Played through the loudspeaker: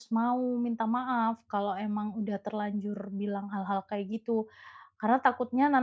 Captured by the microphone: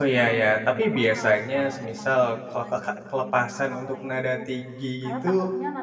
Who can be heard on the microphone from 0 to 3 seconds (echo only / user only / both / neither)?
both